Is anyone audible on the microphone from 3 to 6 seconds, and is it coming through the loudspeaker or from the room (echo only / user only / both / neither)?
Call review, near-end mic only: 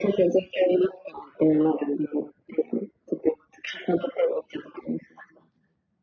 echo only